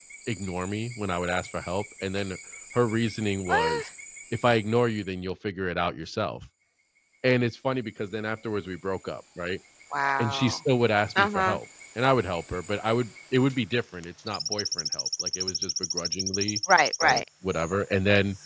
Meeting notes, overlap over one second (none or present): none